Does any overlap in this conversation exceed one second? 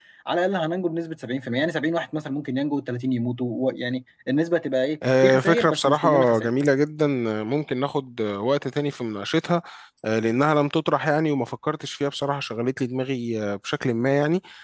Yes, from 5.0 s

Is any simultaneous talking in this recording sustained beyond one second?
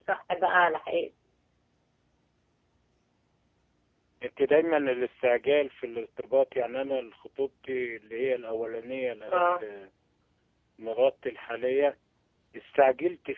No

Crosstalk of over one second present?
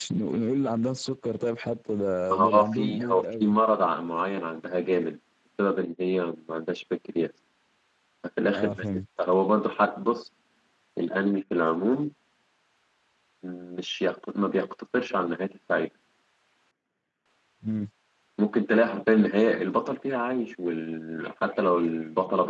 Yes, from 2.3 s

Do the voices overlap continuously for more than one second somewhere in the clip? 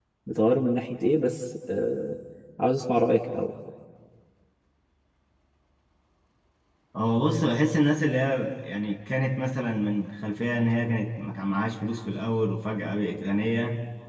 No

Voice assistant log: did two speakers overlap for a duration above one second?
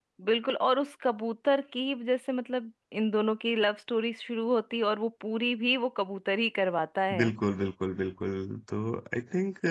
No

